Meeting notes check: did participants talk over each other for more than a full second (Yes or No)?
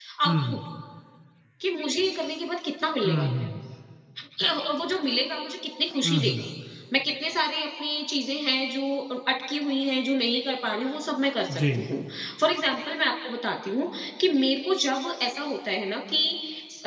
No